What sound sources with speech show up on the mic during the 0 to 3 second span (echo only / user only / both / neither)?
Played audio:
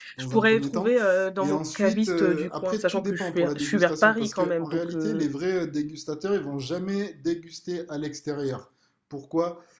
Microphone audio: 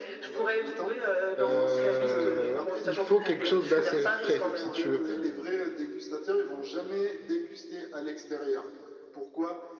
both